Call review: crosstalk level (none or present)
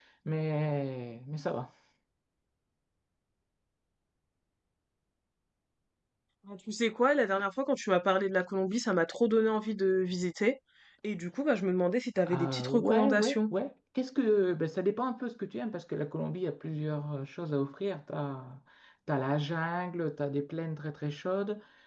present